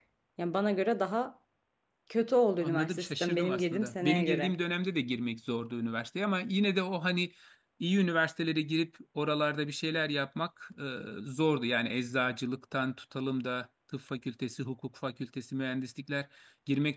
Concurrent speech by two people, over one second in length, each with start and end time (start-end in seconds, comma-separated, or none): 2.6-4.5